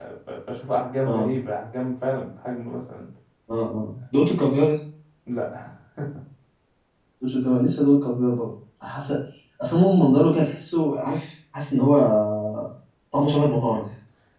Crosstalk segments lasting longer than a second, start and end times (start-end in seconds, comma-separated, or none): none